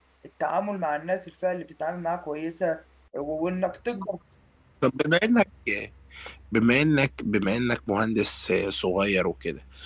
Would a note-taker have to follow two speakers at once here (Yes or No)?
No